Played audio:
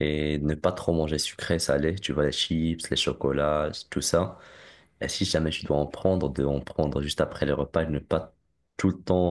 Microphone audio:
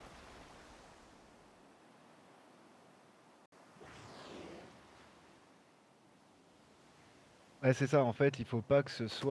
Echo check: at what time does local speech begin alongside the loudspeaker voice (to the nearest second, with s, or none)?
8 s